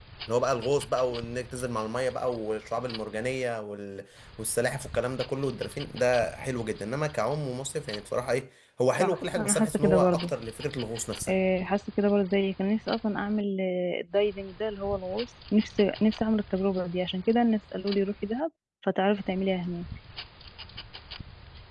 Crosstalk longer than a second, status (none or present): present